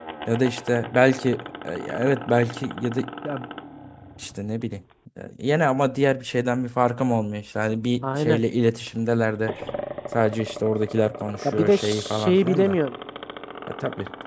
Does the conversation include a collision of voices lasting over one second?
Yes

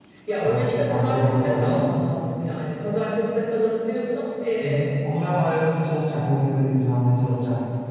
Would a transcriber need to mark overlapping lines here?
Yes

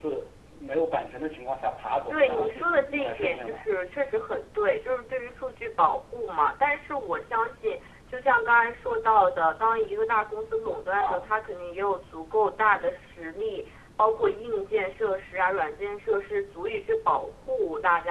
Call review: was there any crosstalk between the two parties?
Yes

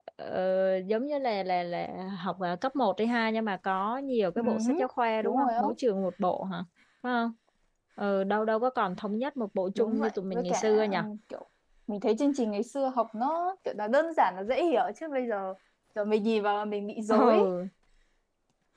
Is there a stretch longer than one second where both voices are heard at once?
Yes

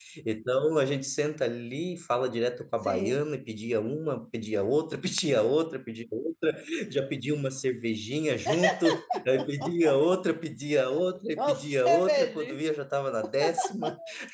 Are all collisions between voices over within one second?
No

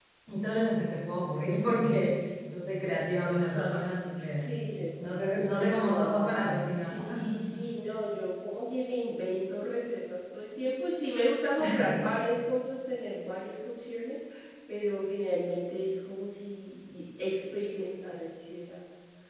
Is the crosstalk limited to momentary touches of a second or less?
No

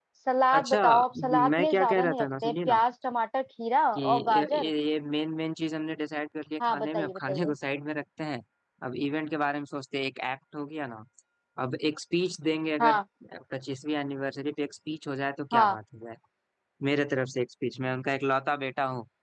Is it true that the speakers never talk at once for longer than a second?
No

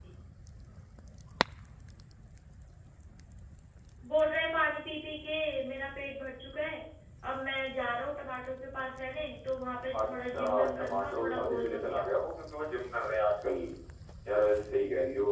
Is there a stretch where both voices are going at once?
Yes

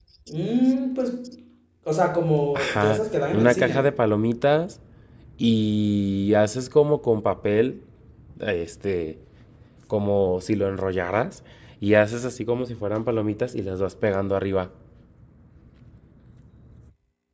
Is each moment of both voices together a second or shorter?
No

